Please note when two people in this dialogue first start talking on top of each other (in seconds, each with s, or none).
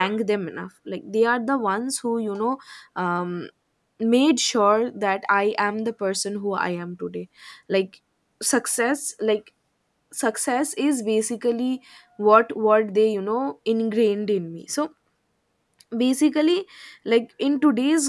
none